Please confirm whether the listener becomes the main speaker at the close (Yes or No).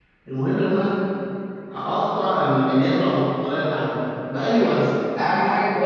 Yes